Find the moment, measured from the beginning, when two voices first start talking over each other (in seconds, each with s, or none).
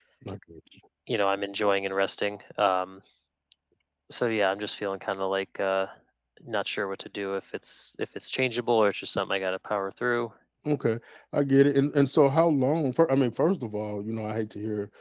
none